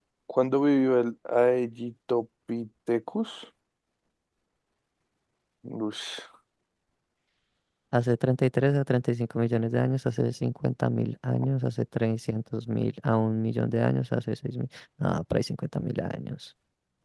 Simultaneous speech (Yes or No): No